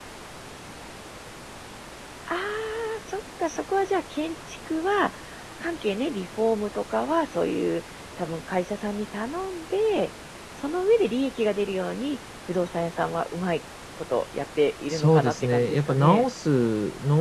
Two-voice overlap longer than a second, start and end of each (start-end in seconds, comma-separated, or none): 14.9-16.2